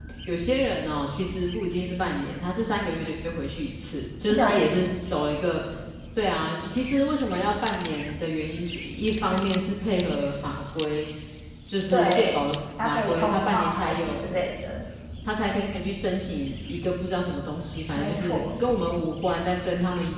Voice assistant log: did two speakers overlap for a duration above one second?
Yes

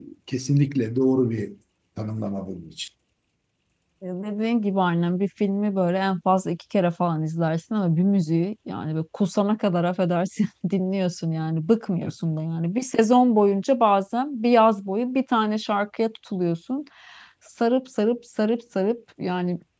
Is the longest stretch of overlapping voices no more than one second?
Yes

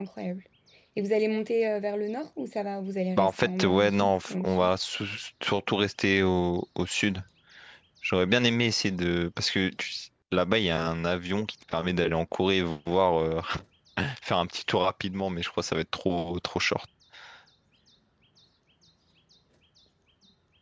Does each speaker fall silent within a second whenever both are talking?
No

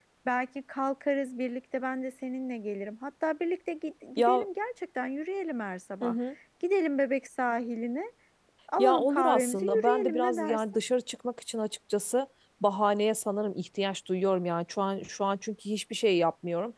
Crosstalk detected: Yes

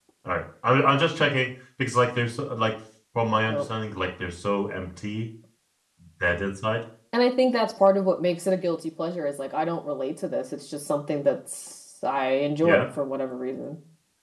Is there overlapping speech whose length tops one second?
No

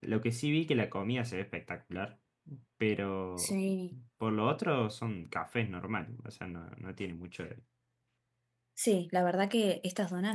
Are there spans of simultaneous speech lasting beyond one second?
No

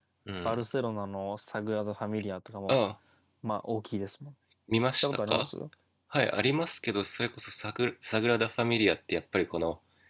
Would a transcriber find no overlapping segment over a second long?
Yes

